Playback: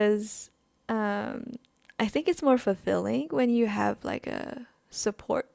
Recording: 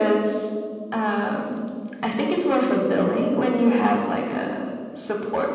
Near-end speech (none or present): none